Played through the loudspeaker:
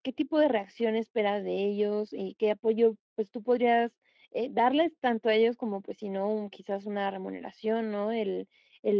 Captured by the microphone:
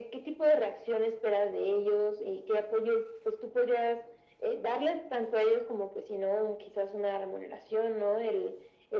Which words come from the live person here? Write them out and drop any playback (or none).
none